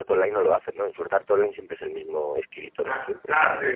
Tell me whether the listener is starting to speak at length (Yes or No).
Yes